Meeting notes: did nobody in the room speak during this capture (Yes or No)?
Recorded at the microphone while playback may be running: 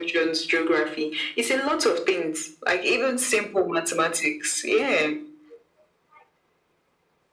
Yes